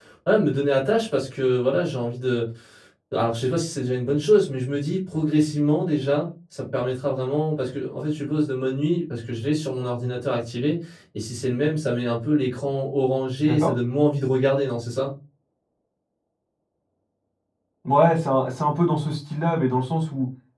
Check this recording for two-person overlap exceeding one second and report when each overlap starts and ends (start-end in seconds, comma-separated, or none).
none